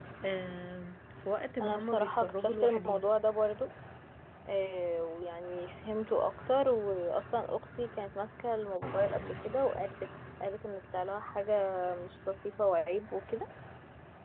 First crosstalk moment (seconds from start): 1.6 s

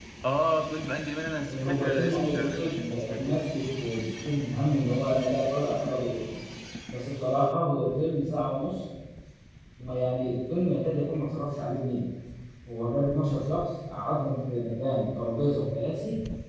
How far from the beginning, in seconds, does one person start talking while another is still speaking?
1.5 s

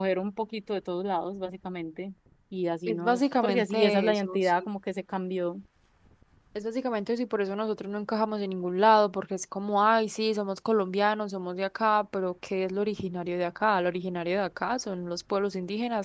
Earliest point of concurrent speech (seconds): 2.9 s

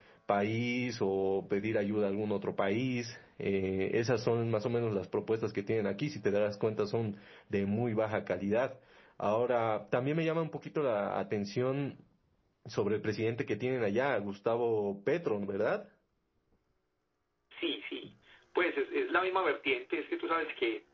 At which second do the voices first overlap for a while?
none

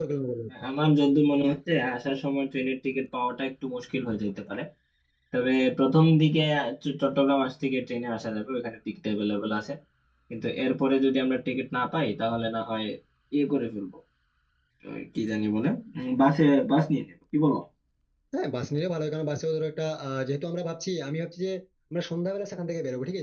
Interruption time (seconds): none

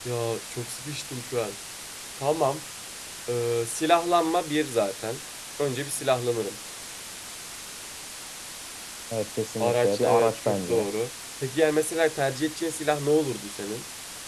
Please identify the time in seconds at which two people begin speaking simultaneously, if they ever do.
9.6 s

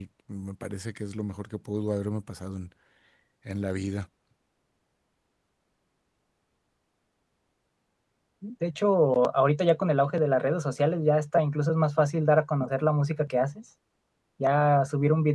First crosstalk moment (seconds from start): none

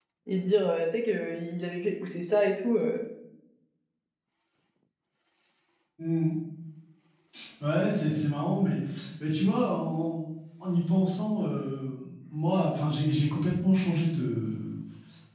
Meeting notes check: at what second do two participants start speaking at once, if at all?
none

